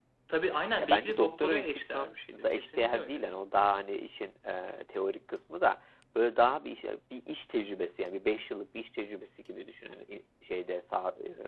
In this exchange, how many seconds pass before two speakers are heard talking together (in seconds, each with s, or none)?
0.8 s